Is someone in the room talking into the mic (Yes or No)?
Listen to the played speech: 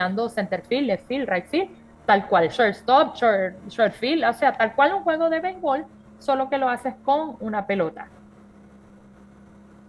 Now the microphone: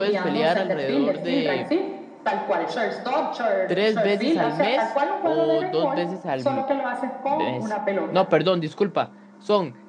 Yes